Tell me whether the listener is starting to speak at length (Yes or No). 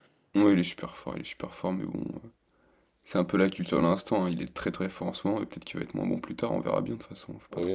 Yes